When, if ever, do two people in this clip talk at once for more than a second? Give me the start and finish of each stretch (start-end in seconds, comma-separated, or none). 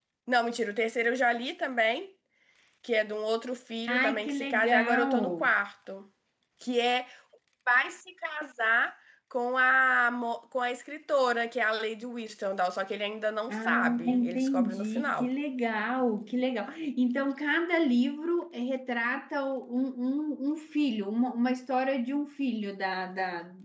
4.0-5.2, 13.5-15.3